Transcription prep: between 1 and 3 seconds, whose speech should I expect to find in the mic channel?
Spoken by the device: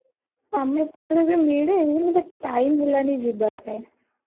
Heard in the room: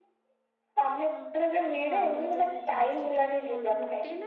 both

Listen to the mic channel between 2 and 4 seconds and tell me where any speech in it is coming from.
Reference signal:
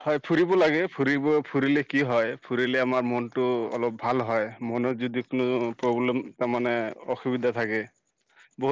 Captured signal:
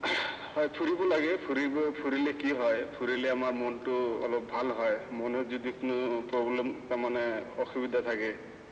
echo only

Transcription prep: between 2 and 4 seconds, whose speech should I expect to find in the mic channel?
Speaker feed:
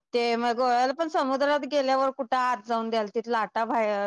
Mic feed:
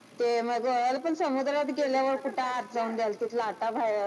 both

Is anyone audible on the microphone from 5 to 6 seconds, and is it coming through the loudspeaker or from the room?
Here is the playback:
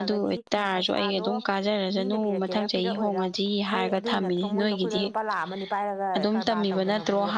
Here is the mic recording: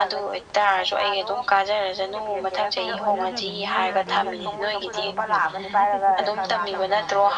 both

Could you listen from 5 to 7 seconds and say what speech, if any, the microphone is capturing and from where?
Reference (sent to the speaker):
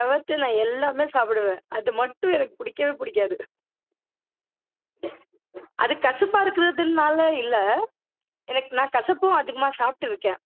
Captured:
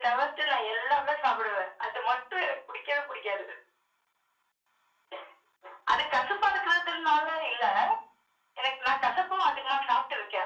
echo only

